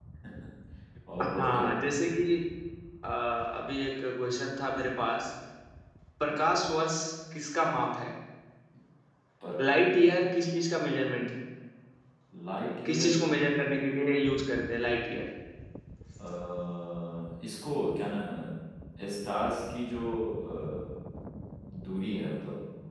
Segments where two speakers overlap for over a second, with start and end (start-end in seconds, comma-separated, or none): none